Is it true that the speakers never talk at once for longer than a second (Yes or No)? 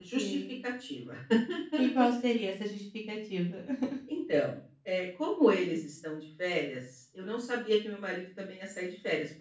Yes